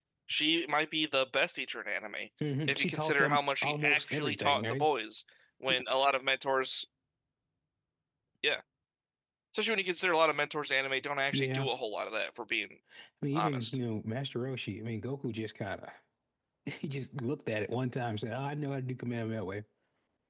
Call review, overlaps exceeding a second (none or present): present